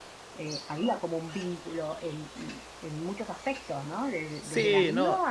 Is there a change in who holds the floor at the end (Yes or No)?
No